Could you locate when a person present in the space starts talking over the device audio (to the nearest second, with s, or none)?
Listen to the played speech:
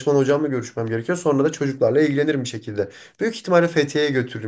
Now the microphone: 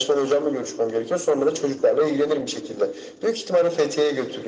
none